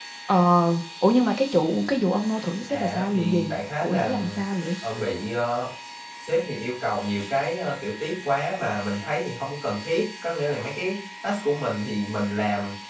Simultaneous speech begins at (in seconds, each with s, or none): 2.7 s